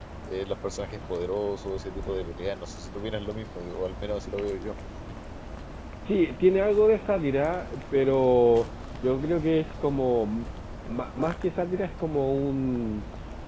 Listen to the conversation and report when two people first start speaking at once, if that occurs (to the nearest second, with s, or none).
none